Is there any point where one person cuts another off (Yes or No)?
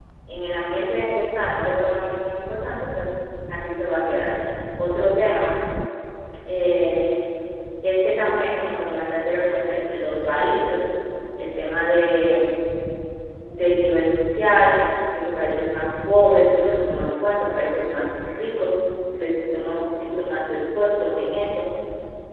No